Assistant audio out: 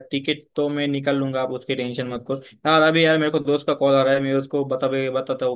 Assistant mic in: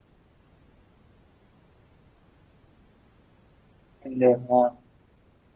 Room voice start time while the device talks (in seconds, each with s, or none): 4.1 s